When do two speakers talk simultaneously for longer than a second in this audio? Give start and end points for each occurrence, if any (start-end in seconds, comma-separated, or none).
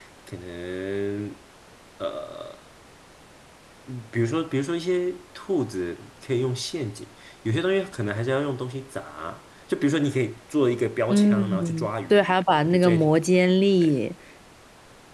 11.1-12.3